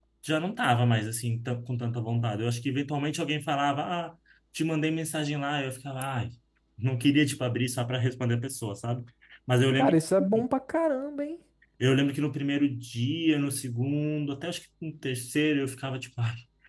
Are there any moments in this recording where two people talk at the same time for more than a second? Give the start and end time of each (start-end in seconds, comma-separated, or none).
none